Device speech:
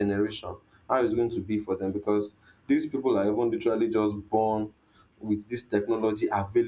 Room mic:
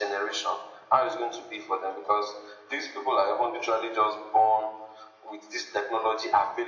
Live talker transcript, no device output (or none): none